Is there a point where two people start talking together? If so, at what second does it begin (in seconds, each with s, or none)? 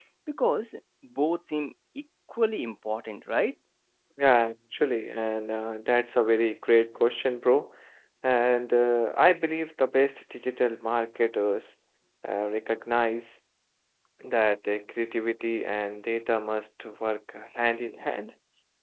none